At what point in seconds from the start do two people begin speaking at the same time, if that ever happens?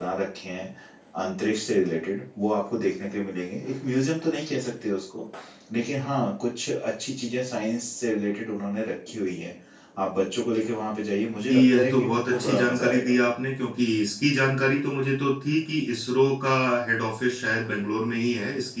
11 s

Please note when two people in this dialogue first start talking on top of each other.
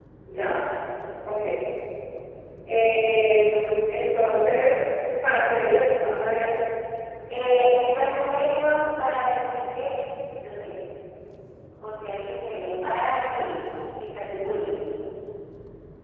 none

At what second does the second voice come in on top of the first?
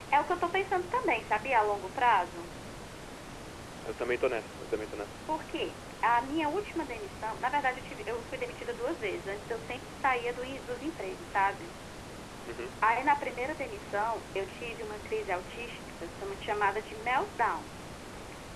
none

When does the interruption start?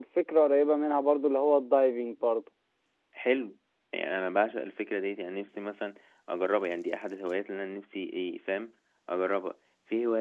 none

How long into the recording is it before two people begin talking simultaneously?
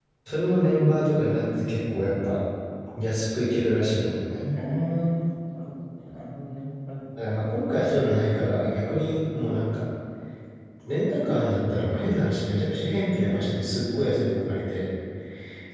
none

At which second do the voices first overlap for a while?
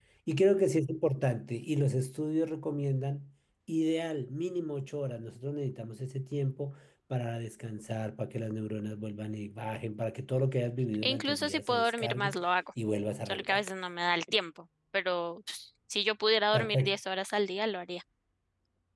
11 s

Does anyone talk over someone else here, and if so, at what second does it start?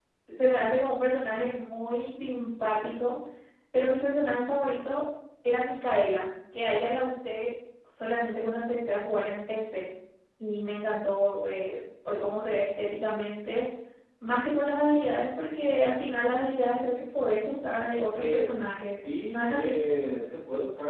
18 s

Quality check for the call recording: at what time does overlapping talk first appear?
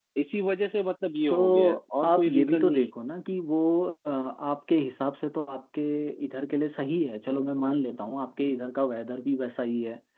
1 s

